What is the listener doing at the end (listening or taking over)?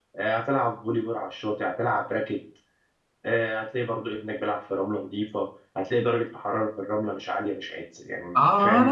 taking over